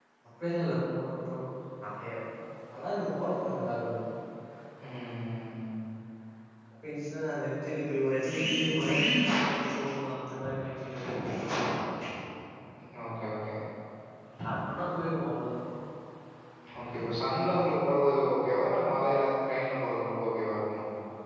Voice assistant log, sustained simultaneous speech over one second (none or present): none